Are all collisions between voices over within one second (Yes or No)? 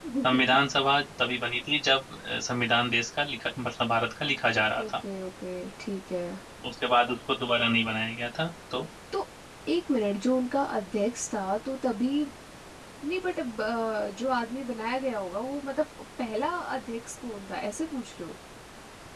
Yes